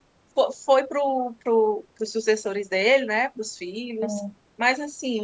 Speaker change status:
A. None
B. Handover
A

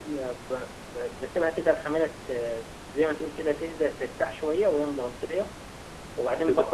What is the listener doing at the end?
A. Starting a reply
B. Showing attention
A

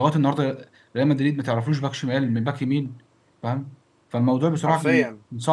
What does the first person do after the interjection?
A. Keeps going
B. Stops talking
A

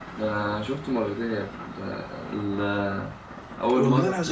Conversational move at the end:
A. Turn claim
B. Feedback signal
B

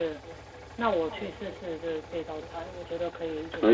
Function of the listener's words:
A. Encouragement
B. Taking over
B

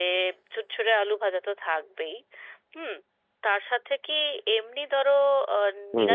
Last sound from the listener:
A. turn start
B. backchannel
B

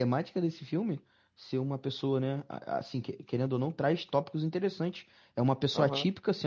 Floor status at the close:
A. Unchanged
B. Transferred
A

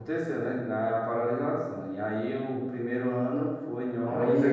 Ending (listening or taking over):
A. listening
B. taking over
B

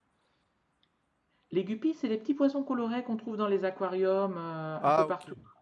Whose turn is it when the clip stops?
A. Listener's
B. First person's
A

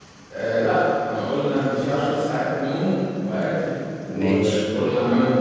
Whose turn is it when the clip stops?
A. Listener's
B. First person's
B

